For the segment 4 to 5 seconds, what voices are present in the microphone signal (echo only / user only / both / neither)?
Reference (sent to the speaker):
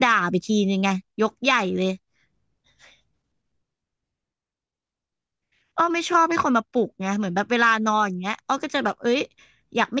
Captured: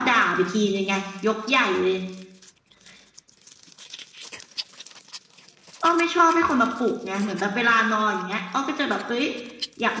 neither